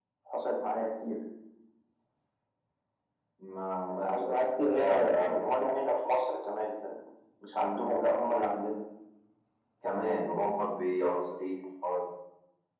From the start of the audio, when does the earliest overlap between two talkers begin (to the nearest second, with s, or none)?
4 s